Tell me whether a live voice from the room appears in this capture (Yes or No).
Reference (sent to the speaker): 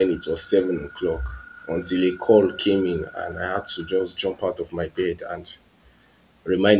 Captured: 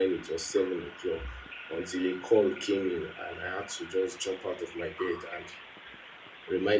No